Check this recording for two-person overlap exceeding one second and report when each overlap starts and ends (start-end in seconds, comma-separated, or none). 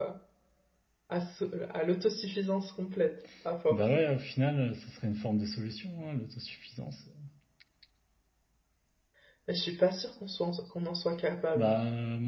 none